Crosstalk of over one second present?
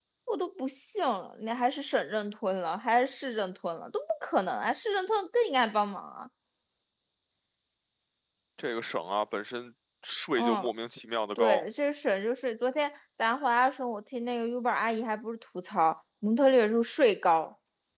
No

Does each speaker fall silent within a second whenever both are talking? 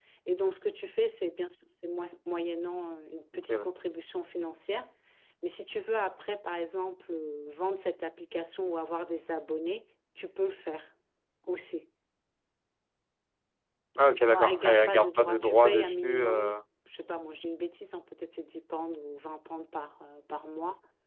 No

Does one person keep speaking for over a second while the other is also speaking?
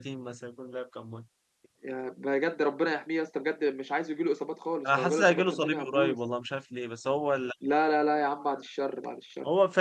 Yes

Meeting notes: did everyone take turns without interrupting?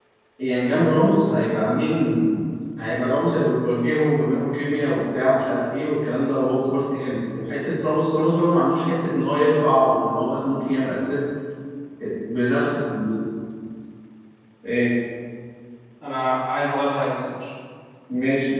Yes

